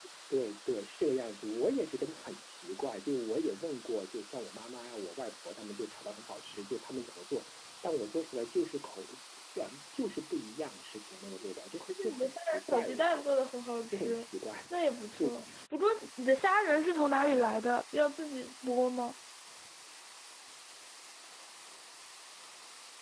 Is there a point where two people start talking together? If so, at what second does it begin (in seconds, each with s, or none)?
11.9 s